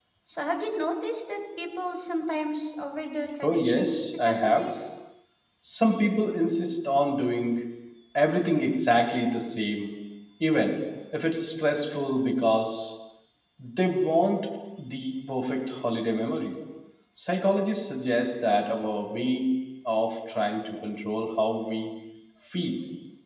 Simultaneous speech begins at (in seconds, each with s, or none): 3.4 s